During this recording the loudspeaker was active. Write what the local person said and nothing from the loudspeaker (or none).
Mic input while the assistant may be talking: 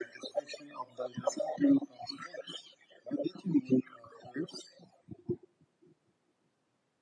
none